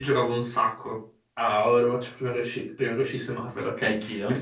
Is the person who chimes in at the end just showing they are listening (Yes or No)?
Yes